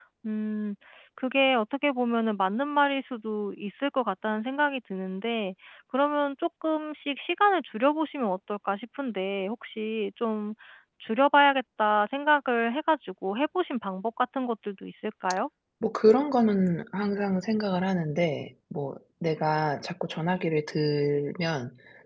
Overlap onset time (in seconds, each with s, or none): none